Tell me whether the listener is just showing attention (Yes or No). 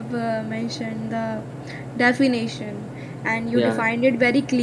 Yes